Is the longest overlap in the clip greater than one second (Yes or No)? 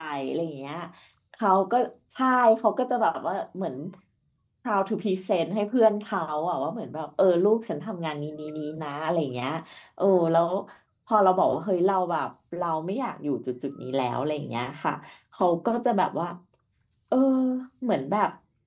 No